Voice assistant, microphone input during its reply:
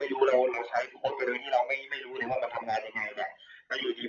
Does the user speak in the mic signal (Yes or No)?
No